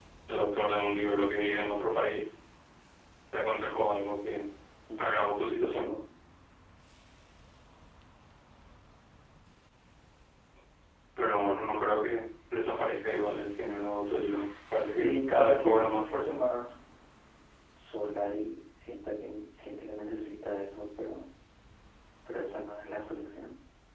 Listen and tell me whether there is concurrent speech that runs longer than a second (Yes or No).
Yes